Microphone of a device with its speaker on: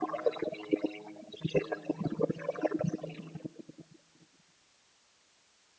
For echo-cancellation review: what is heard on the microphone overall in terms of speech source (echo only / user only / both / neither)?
echo only